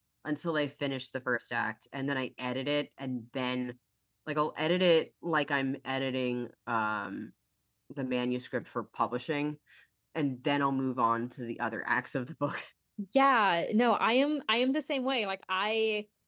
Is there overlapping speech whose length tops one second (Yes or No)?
No